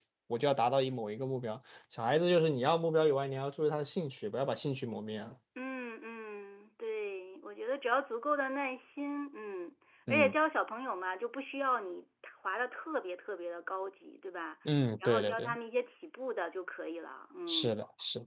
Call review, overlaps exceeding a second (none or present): none